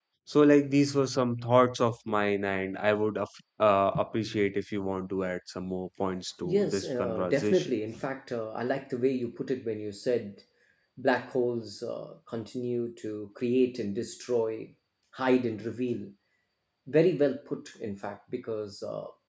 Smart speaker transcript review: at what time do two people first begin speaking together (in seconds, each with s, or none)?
6.4 s